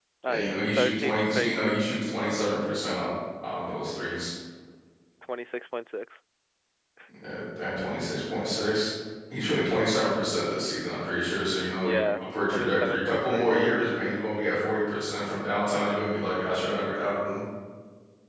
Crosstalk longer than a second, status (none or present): present